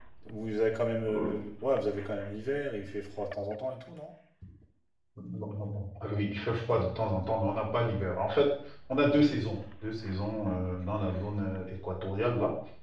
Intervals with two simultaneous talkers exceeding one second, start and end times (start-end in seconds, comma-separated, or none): none